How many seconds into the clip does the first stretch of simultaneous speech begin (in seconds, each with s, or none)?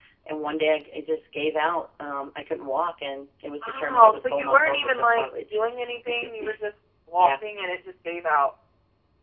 3.7 s